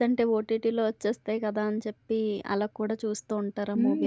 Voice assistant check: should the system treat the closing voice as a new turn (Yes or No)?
Yes